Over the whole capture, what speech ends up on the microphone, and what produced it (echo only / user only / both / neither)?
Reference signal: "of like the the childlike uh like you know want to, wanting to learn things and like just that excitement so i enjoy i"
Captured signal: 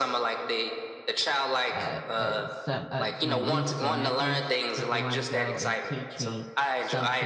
both